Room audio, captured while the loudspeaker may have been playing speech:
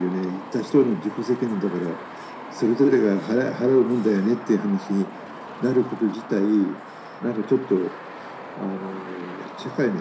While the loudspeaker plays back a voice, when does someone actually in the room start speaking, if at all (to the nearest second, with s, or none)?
none